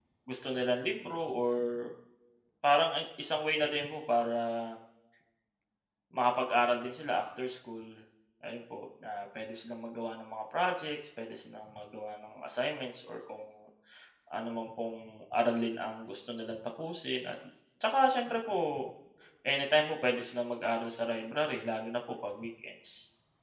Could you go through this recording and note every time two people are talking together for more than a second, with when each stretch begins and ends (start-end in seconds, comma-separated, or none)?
none